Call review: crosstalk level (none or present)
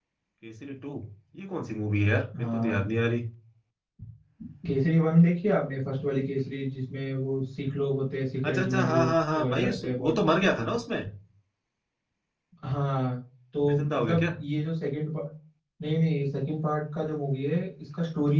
present